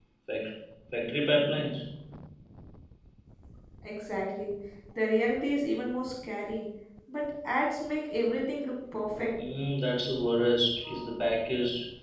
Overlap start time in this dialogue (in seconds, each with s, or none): none